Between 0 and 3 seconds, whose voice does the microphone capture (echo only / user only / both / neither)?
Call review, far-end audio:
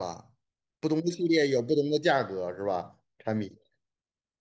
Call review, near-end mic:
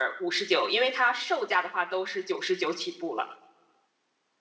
user only